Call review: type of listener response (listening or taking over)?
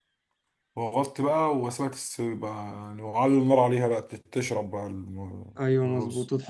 taking over